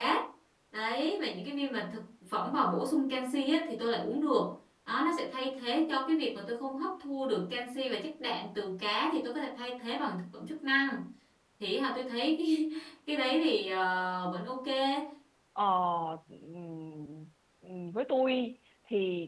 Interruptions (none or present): none